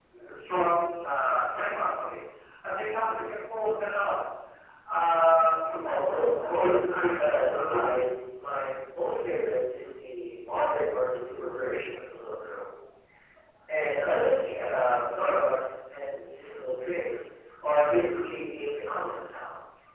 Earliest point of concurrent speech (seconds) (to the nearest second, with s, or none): 7 s